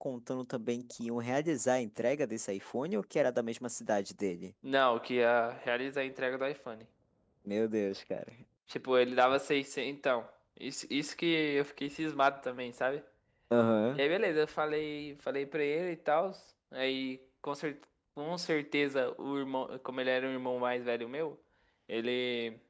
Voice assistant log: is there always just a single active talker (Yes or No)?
Yes